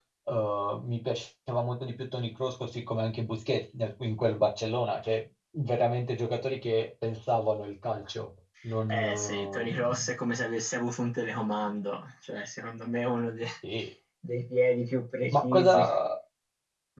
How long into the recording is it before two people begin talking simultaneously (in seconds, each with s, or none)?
8.9 s